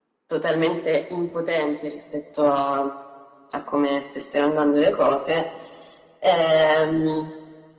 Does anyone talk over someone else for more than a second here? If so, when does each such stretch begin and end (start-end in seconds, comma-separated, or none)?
none